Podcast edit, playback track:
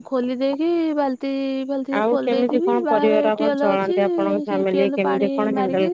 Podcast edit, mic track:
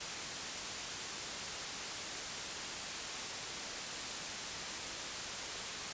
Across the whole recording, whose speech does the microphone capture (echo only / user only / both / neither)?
neither